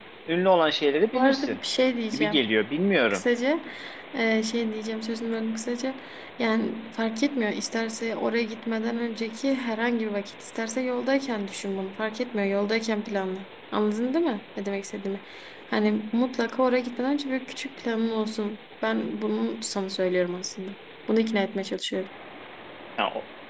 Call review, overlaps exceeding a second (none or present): none